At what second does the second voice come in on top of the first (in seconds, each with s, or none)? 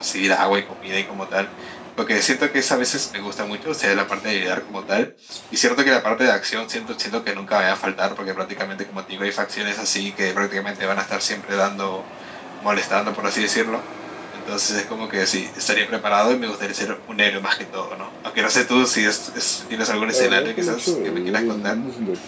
20.1 s